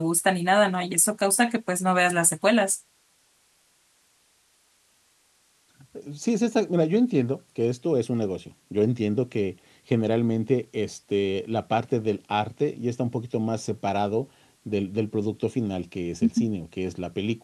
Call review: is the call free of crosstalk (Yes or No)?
Yes